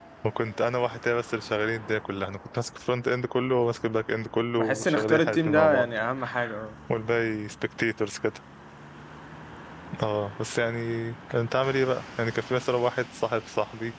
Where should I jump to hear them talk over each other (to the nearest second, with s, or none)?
5 s